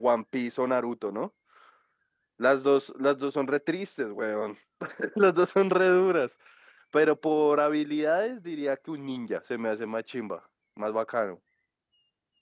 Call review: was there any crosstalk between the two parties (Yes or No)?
No